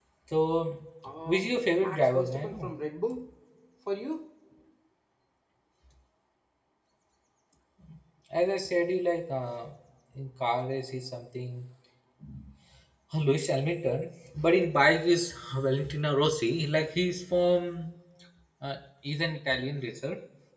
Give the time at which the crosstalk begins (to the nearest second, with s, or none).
1 s